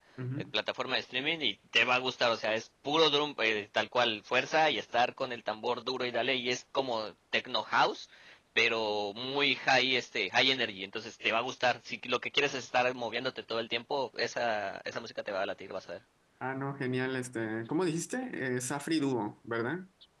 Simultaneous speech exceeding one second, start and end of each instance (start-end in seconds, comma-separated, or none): none